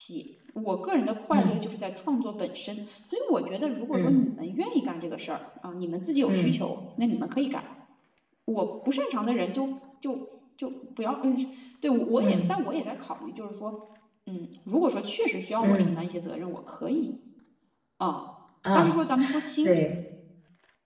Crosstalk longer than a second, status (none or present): none